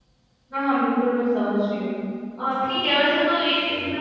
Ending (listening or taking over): listening